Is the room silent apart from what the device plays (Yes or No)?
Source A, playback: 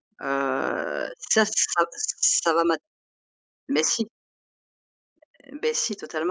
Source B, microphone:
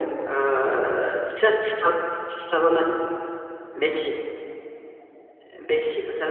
Yes